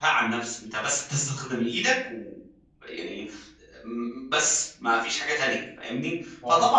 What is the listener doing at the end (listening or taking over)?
listening